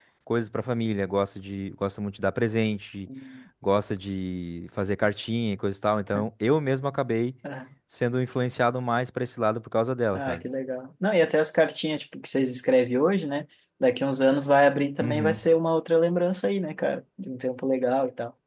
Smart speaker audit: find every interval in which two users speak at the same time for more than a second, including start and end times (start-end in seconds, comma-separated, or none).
none